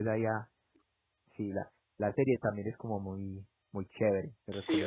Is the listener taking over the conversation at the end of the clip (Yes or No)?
Yes